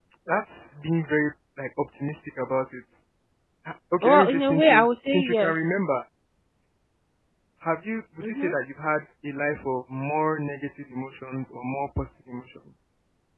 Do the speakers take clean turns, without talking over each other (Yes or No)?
No